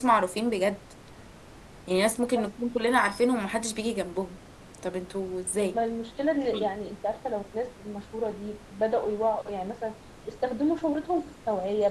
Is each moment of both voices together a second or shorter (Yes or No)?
Yes